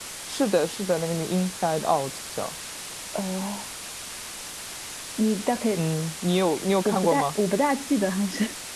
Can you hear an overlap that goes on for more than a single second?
No

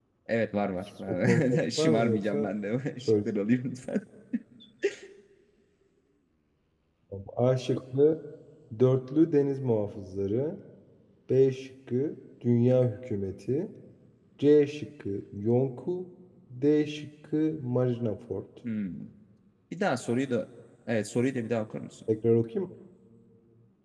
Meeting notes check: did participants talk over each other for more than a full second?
Yes, from 1.1 s

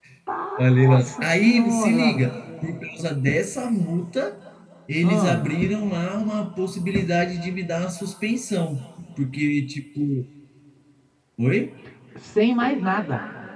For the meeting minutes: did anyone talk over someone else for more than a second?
Yes, from 0.6 s

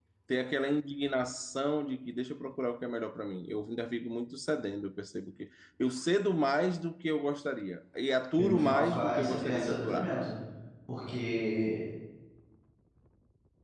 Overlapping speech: Yes, from 8.4 s

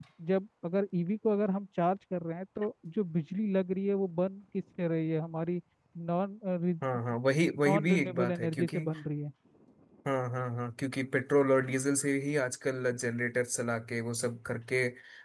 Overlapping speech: Yes, from 7.7 s

